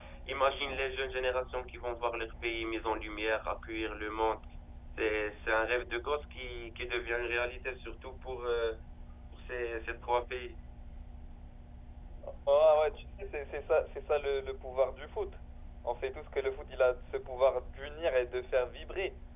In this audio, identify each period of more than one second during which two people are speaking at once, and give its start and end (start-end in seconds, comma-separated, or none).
none